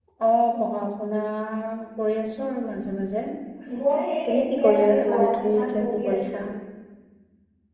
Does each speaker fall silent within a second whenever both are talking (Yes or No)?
No